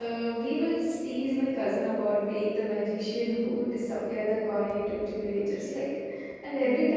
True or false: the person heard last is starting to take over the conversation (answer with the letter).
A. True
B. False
B